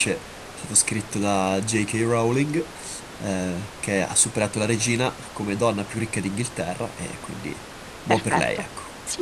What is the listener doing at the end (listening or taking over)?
taking over